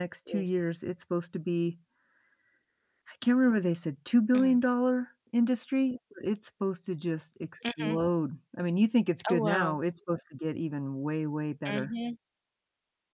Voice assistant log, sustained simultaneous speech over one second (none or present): none